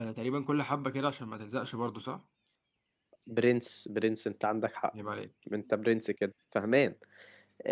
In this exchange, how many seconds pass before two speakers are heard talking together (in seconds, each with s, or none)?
none